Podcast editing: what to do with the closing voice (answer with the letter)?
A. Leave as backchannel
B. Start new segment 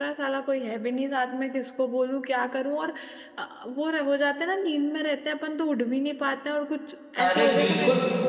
B